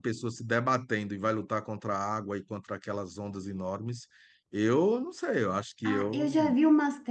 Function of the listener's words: taking over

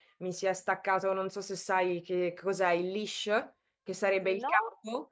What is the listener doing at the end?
listening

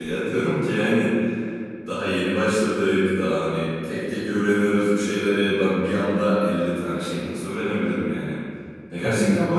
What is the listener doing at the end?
listening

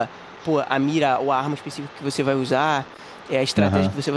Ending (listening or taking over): listening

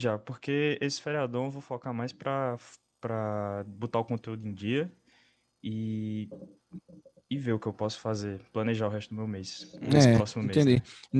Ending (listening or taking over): taking over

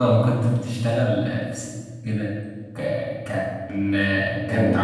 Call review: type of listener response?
listening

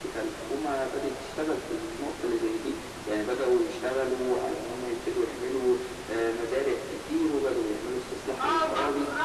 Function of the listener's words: taking over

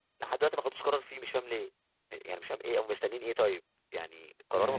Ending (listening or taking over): taking over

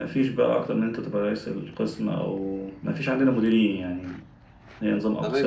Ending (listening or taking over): taking over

